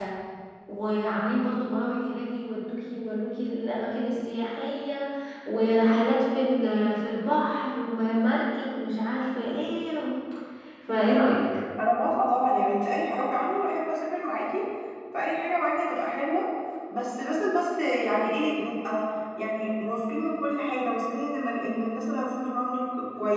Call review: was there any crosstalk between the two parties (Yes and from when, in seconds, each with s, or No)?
No